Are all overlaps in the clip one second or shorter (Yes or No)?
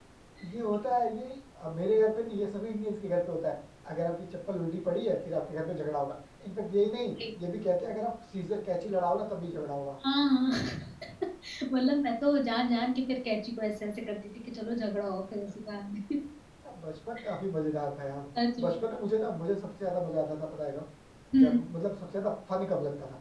Yes